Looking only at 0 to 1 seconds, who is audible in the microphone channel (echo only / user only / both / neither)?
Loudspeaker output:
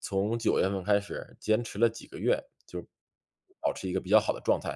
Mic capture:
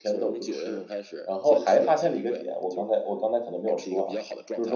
both